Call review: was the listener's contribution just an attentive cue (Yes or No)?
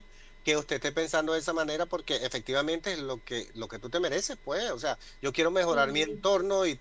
Yes